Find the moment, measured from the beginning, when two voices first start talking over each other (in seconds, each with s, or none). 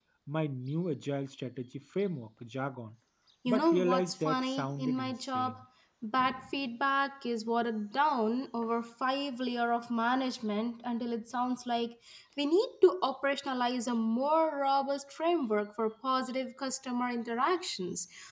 3.5 s